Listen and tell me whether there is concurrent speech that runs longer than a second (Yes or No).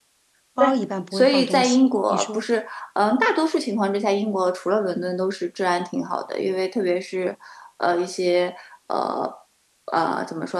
Yes